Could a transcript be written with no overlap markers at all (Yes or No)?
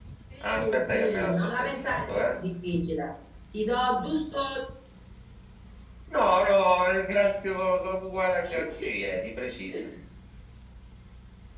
No